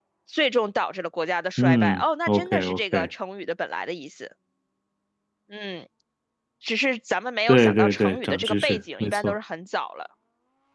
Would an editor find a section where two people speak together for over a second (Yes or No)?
Yes